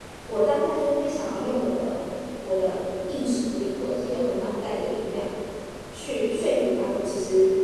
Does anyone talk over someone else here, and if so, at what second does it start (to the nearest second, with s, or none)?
none